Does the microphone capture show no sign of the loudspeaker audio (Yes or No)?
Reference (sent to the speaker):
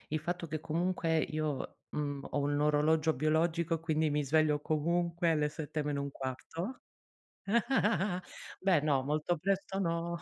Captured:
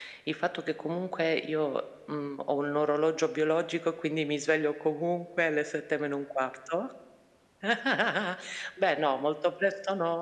No